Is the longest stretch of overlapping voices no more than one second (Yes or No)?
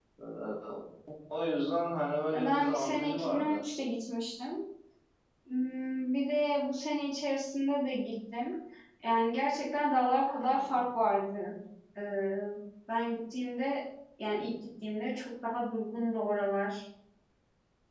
No